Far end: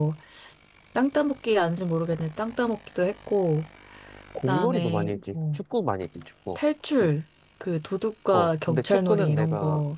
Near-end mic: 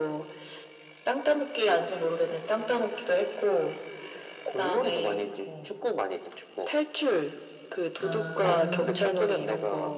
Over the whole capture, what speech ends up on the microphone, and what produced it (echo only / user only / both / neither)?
both